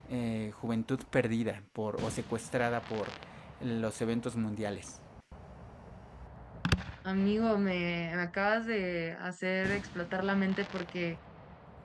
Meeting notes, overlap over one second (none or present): none